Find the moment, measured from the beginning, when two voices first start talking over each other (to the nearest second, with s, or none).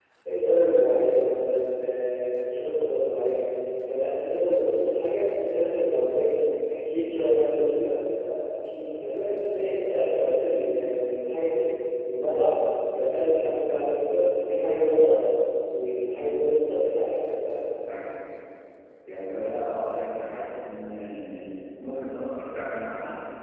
none